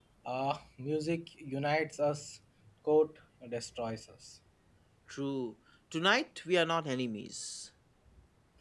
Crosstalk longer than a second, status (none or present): none